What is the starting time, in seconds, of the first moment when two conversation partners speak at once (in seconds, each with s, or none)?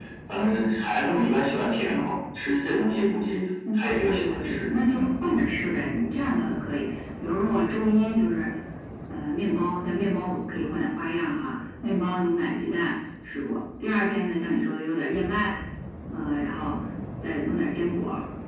3.6 s